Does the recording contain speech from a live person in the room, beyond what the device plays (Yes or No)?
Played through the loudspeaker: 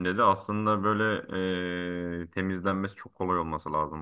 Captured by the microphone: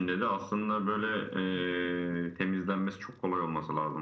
No